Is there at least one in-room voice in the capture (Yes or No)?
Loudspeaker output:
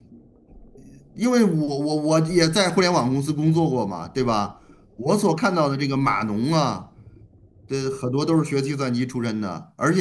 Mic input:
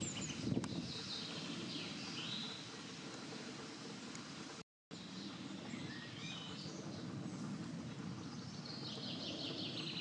No